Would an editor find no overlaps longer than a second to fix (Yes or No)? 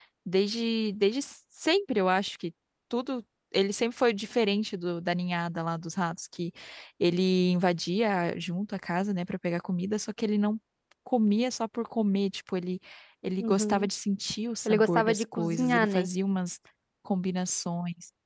No